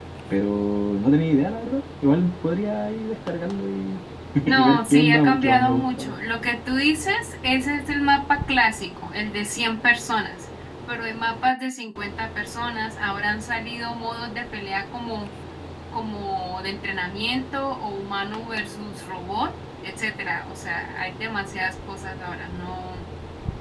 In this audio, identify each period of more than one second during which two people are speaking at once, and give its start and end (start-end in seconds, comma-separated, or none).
4.4-6.2